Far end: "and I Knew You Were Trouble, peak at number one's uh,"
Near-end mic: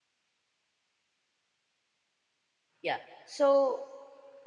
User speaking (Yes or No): Yes